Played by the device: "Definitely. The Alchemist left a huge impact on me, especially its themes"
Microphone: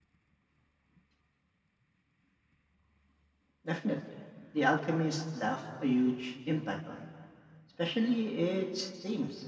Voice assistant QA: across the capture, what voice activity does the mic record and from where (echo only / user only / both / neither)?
echo only